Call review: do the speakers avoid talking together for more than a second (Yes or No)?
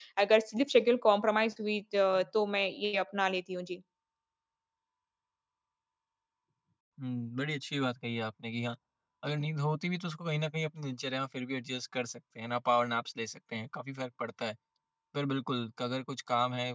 Yes